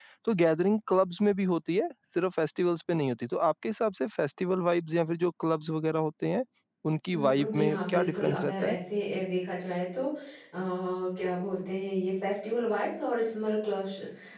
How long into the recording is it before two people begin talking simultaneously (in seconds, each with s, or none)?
7.1 s